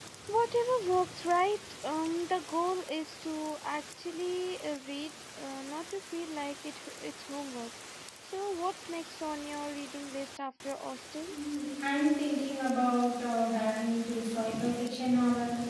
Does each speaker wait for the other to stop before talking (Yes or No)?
Yes